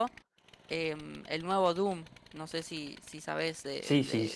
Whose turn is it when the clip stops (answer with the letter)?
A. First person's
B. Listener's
B